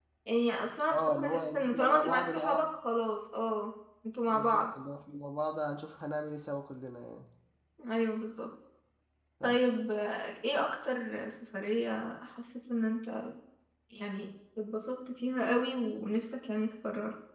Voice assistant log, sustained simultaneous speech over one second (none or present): present